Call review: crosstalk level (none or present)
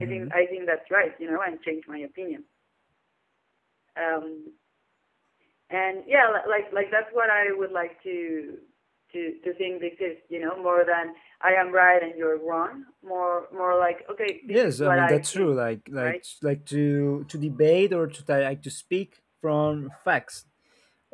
present